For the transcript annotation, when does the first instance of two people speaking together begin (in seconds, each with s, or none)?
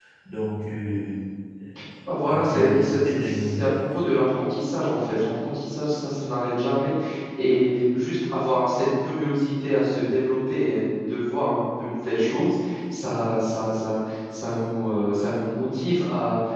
2.2 s